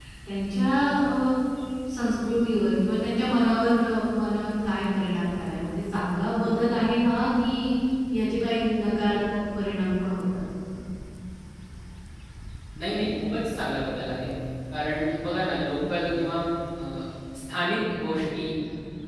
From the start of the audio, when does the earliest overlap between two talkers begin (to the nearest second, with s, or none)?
none